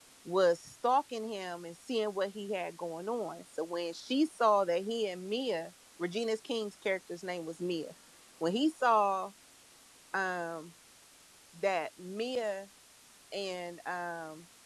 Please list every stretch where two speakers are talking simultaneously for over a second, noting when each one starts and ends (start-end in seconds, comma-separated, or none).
none